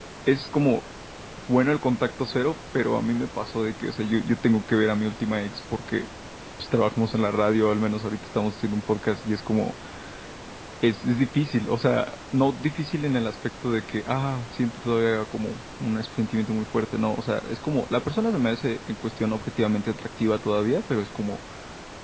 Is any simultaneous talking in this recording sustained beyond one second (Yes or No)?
No